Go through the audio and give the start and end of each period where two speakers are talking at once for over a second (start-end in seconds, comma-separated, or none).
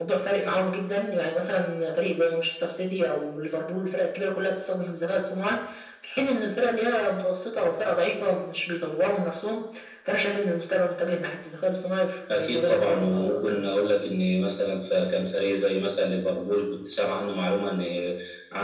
12.3-13.7